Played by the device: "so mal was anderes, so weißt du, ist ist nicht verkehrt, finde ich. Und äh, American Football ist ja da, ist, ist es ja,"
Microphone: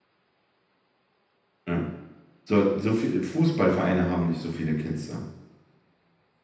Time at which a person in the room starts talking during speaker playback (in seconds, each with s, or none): 1.7 s